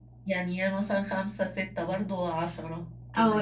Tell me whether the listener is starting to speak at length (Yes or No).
Yes